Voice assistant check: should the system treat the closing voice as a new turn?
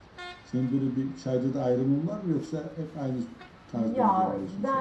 Yes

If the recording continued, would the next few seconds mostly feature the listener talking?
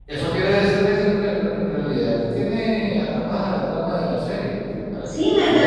Yes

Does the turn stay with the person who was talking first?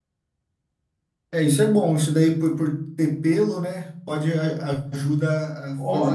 Yes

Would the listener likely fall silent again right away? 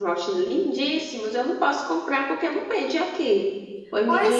No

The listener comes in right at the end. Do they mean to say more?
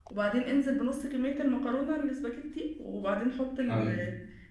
No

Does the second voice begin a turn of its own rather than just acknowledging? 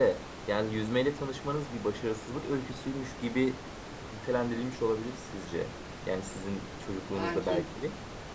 No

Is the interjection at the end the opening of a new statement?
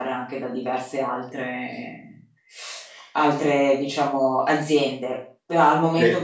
No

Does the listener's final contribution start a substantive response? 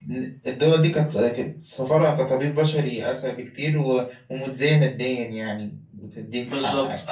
Yes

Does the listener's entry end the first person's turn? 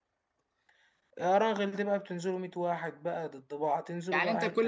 Yes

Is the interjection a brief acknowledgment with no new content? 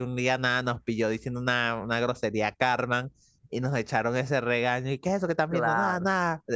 Yes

